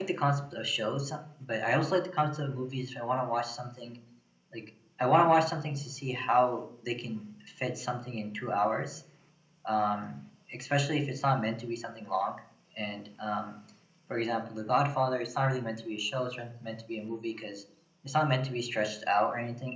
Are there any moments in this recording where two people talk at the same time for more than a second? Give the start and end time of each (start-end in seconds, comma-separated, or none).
none